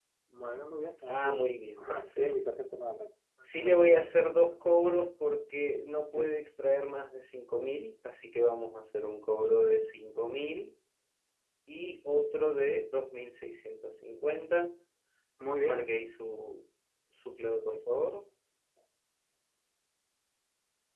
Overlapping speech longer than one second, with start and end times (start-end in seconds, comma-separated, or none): 1.1-2.3